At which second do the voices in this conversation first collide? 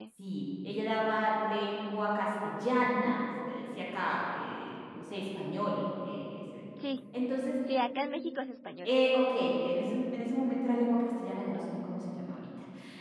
none

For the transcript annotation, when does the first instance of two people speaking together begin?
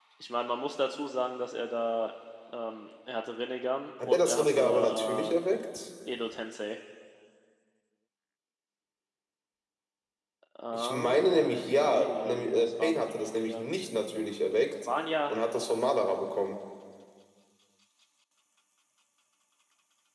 4 s

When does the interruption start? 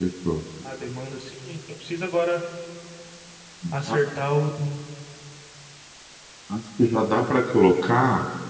none

